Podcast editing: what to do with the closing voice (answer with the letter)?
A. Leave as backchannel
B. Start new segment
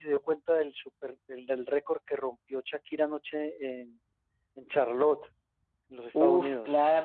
B